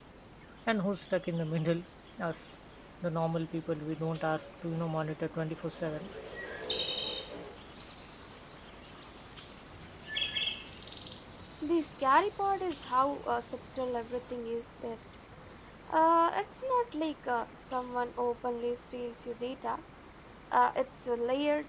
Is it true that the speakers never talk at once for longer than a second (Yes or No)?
Yes